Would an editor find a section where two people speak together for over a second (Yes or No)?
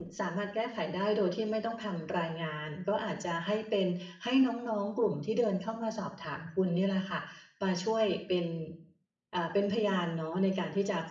No